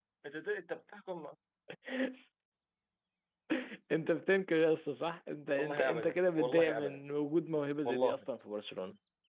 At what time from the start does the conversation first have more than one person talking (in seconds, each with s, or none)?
5.5 s